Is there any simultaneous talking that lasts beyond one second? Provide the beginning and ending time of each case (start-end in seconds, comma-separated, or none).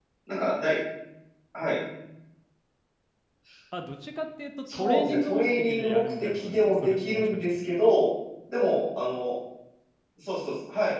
4.7-7.6